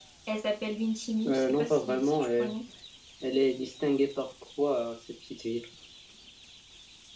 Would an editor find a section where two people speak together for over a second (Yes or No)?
Yes